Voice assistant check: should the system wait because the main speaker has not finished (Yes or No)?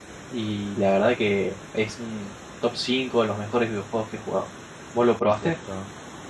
No